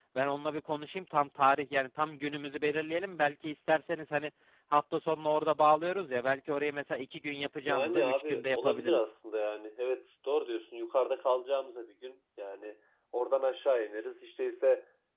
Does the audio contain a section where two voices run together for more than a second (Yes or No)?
Yes